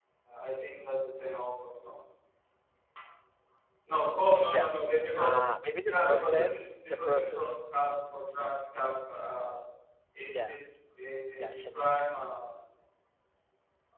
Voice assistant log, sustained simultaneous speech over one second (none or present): present